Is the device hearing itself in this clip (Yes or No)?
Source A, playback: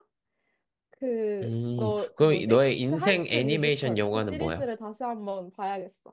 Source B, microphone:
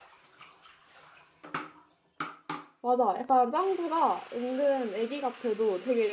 No